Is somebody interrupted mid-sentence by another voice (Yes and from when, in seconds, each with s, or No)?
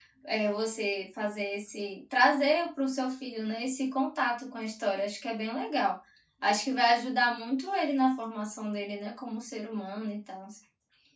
No